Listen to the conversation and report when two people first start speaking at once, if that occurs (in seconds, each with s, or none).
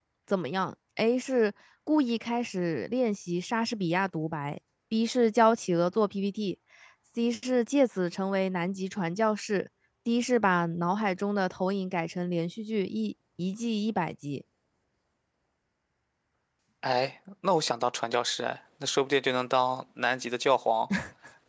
none